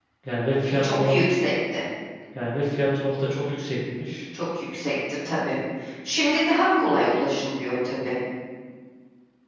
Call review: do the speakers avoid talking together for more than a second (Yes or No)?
Yes